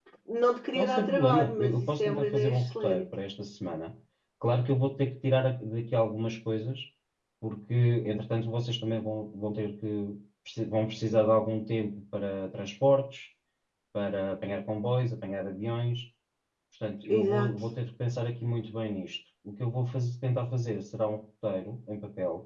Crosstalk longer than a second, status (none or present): present